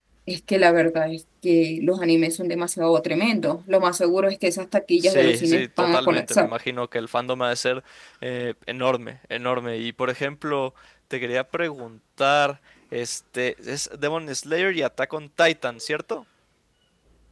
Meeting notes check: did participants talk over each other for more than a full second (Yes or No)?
Yes